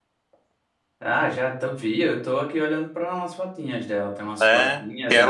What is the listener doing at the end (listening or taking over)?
taking over